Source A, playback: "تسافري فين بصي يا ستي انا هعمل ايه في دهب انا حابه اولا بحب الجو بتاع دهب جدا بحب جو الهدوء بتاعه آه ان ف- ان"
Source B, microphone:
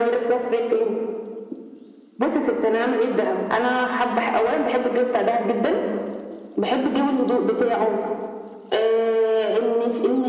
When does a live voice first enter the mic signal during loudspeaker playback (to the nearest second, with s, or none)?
none